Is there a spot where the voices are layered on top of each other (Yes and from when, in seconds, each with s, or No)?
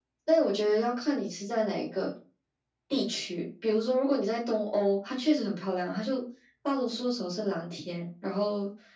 No